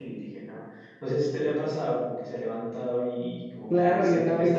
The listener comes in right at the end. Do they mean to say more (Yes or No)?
Yes